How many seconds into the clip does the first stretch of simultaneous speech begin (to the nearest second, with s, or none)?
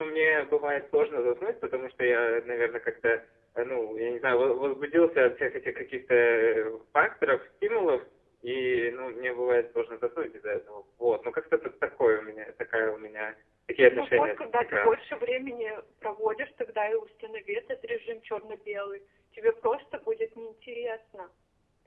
14 s